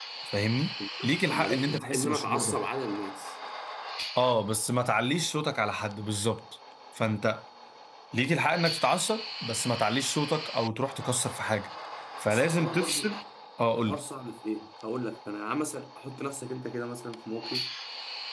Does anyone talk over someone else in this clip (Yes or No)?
Yes